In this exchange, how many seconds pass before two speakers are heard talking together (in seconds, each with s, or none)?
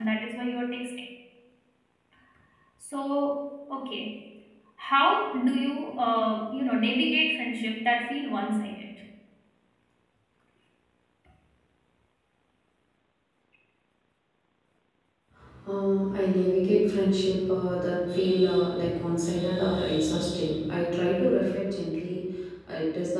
none